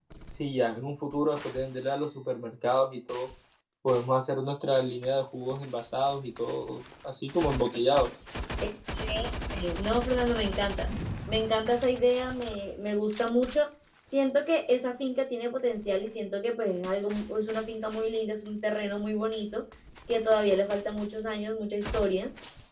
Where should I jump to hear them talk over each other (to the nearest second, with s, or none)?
none